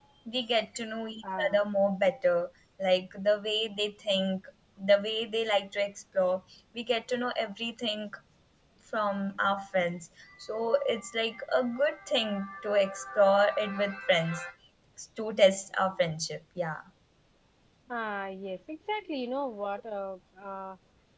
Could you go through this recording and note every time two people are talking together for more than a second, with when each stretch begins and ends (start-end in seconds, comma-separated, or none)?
none